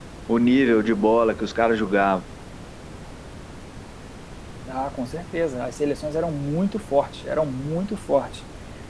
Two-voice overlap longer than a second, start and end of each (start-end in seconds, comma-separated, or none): none